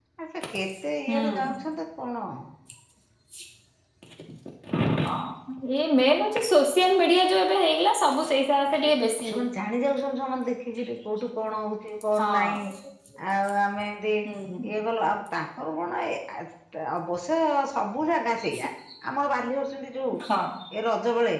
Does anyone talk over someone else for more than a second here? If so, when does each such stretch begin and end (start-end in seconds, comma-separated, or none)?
none